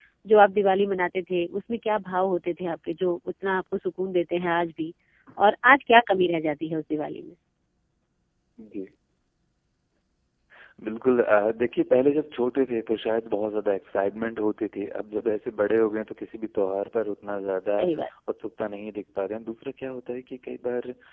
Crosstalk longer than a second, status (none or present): none